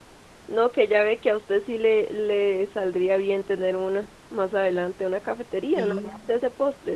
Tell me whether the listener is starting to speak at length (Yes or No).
No